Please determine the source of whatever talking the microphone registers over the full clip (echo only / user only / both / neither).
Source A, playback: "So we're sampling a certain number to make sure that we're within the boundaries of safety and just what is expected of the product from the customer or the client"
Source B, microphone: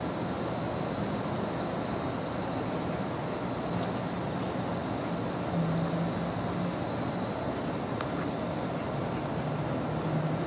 neither